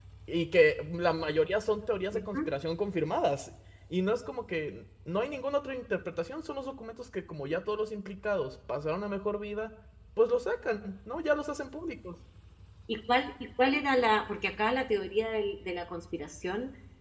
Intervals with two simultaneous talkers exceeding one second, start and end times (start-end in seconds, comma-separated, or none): none